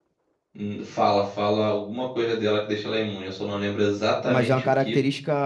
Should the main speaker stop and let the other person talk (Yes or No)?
Yes